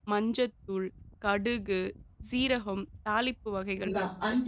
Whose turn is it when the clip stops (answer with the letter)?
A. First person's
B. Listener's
B